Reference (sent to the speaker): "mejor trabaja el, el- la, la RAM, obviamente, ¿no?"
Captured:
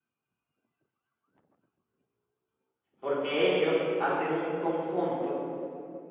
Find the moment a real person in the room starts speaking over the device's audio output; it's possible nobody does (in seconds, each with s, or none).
3.0 s